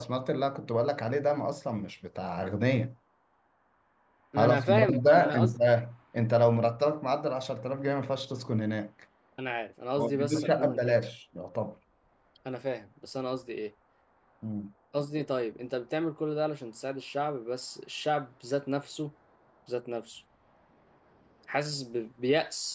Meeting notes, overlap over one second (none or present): present